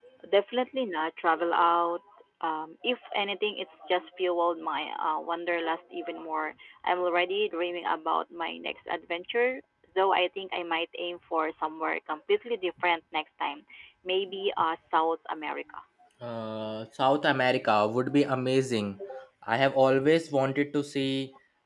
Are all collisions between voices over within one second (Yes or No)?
Yes